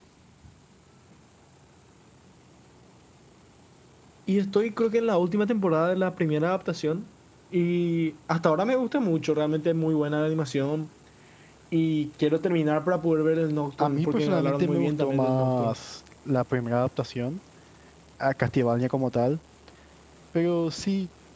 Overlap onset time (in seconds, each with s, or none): 13.8 s